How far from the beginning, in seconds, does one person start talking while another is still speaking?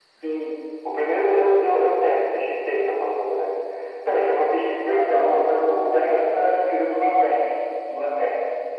4.8 s

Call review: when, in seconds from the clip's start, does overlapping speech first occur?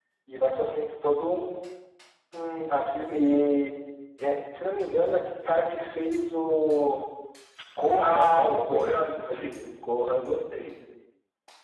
8.0 s

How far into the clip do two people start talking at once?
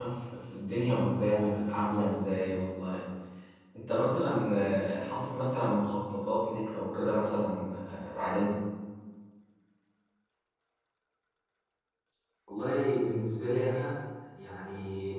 none

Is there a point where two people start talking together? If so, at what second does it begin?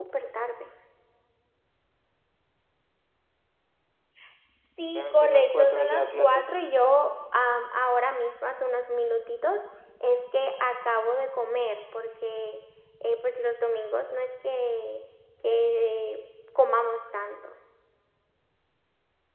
4.9 s

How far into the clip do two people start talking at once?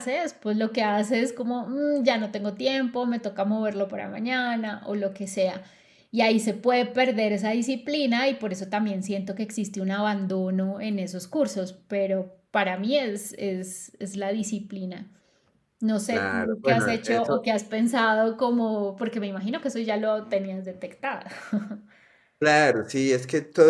16.1 s

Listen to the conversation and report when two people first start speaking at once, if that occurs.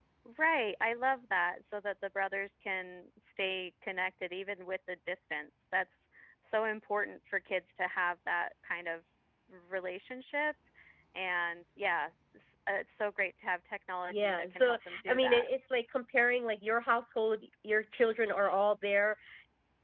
14.1 s

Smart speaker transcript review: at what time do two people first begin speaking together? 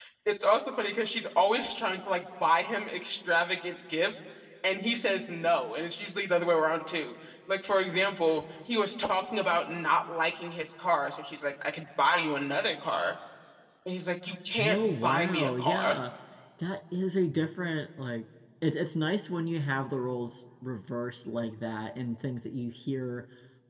14.6 s

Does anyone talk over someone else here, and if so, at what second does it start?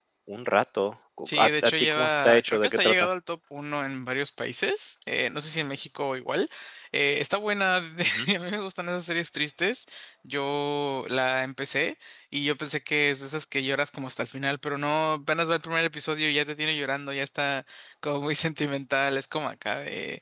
1.3 s

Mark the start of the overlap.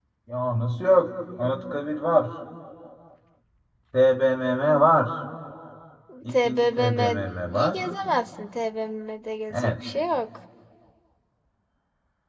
6.3 s

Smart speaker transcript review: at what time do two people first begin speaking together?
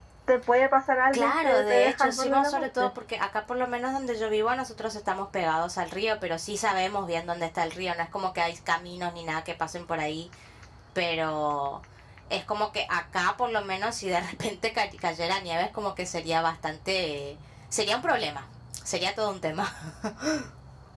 1.1 s

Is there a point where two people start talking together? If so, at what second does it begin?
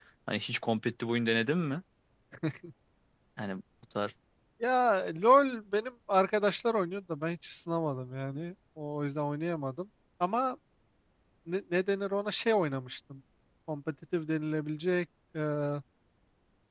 none

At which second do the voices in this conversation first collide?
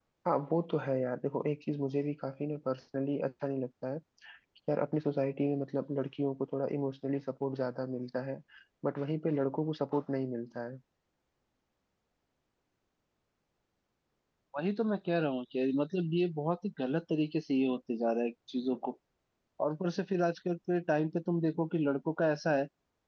none

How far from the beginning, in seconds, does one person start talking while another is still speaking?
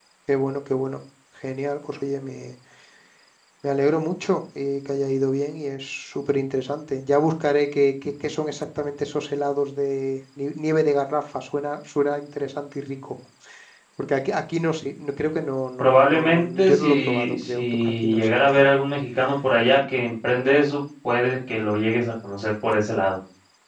15.8 s

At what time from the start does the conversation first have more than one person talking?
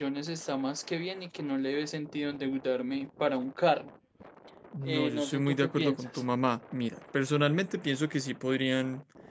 4.8 s

